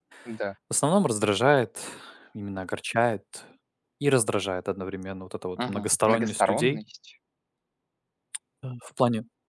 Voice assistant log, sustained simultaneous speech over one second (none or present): present